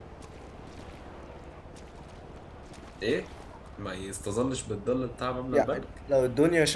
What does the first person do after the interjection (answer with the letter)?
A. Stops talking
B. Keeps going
A